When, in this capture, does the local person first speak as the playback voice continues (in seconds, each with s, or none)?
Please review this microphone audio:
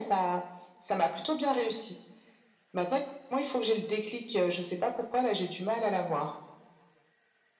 none